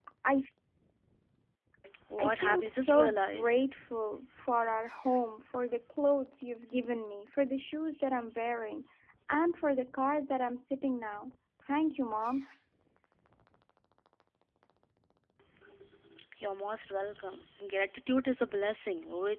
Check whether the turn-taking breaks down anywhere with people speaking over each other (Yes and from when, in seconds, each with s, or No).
Yes, from 2.2 s